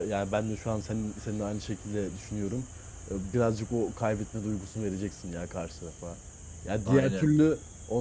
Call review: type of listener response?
listening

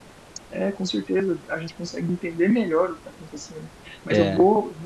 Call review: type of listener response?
listening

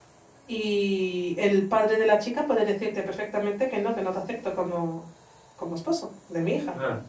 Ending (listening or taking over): taking over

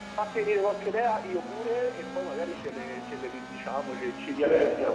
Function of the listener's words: taking over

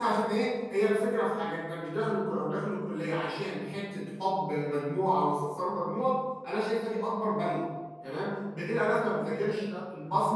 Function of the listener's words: listening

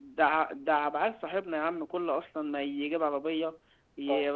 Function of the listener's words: listening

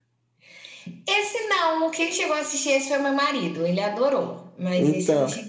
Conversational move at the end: taking over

